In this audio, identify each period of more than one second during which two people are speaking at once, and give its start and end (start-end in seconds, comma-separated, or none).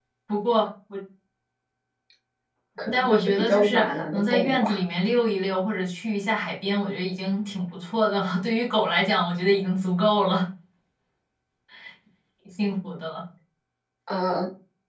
2.9-4.8